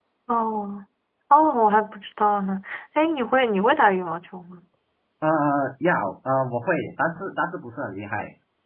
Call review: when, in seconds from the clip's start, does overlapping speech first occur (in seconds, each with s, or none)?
none